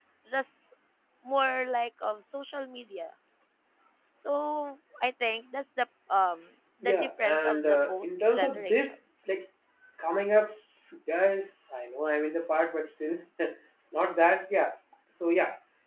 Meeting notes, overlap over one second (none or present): present